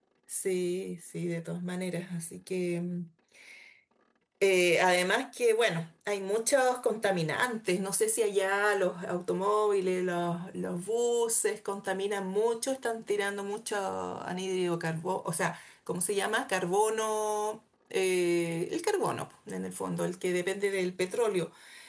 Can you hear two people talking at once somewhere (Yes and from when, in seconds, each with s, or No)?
No